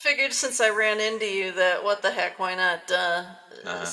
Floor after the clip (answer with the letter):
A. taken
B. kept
B